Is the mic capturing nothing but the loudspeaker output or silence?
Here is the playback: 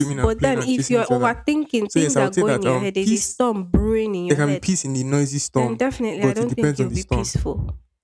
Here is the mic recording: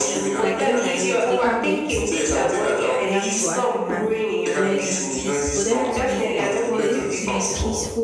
No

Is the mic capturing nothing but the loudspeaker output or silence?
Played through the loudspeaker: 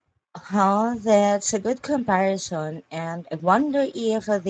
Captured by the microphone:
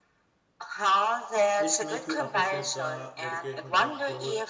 No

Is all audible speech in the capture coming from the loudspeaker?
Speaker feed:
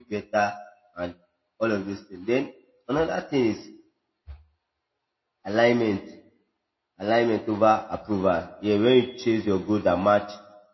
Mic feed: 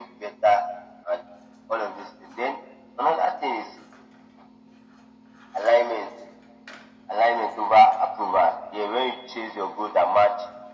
Yes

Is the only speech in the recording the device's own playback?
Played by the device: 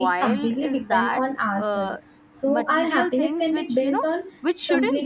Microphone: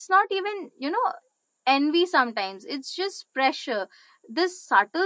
No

